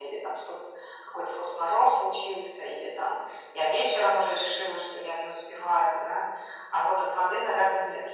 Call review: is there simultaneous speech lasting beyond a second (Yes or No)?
No